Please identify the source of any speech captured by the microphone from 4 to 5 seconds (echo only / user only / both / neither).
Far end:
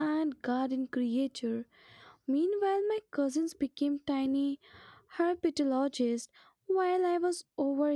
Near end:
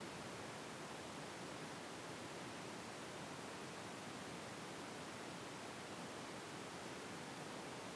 neither